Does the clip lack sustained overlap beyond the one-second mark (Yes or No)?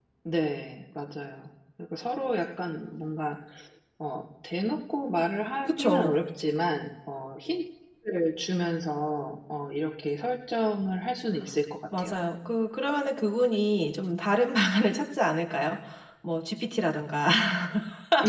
Yes